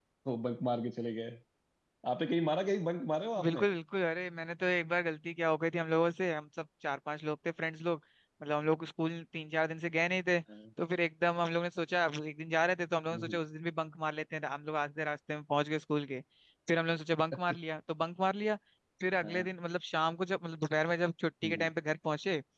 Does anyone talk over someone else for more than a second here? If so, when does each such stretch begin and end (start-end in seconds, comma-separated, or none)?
none